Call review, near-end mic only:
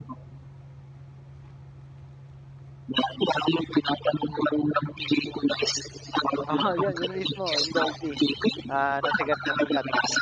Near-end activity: present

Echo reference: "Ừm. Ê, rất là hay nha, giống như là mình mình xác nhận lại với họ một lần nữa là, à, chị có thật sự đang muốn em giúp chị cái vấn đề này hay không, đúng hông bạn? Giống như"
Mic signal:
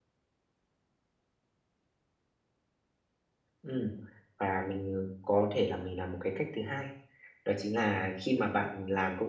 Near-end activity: present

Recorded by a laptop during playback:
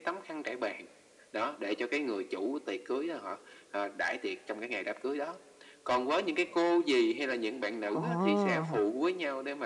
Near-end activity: present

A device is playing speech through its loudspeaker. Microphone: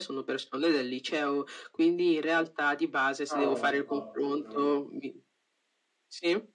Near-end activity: present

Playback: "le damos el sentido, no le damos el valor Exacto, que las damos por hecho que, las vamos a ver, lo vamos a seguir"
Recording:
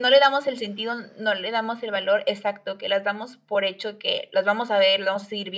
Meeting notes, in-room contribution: none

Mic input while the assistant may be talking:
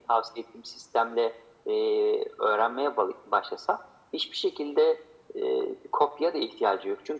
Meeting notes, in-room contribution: none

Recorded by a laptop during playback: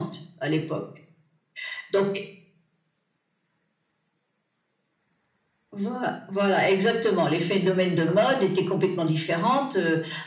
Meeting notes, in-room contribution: none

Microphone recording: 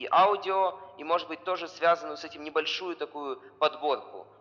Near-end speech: none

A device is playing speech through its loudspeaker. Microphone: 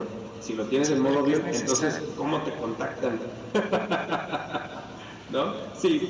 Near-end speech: present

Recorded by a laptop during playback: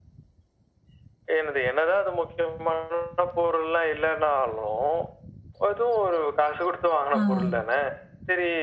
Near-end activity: present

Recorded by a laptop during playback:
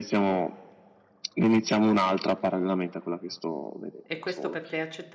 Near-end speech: present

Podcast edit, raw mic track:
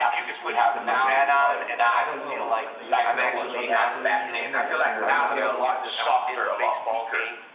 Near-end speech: present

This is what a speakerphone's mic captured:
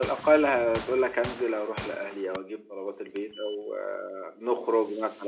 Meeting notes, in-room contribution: none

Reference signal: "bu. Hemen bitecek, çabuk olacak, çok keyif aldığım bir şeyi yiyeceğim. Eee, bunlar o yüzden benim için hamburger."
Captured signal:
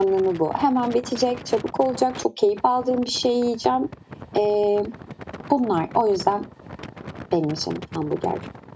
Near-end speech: none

